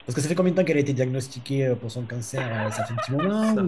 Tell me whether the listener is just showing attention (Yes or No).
No